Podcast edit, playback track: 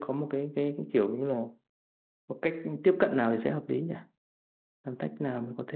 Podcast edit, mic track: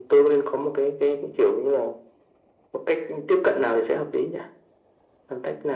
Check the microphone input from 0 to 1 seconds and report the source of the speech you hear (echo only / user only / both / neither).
echo only